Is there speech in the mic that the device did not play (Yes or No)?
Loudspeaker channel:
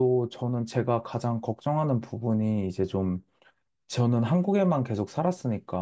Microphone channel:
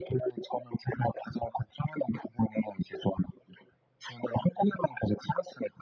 No